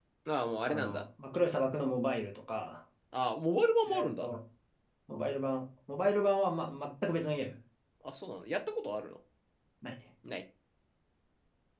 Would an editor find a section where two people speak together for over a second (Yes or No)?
No